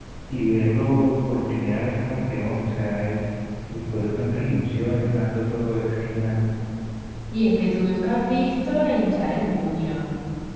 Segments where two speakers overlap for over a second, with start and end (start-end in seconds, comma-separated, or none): none